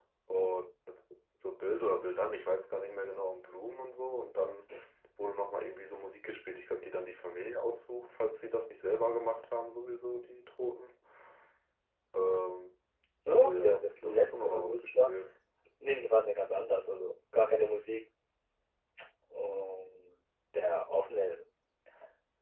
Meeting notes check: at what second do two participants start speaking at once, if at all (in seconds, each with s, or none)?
13.3 s